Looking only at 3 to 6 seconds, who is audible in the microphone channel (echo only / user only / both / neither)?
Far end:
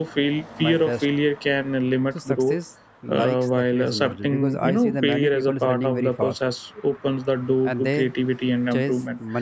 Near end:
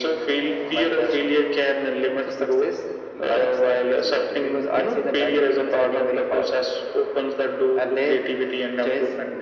echo only